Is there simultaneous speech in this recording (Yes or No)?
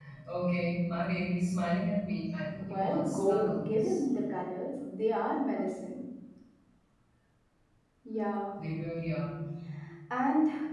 Yes